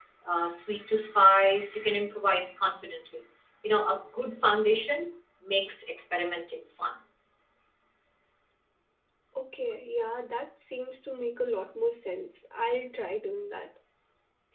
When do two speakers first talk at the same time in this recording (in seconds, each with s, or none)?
none